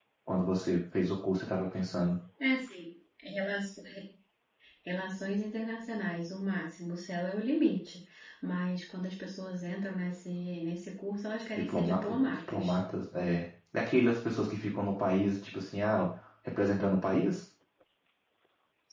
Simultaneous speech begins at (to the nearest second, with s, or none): 12 s